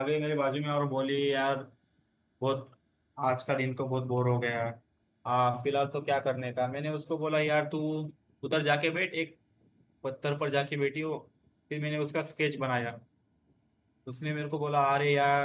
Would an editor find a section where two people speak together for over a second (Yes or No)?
No